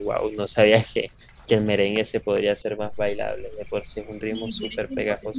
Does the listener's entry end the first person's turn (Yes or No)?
Yes